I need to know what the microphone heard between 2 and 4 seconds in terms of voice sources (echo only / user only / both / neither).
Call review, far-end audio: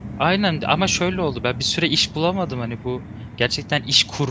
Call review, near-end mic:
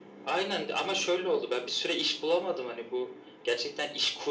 echo only